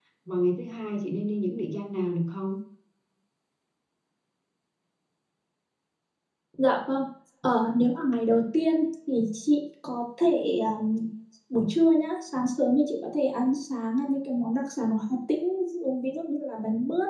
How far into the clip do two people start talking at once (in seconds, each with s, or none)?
none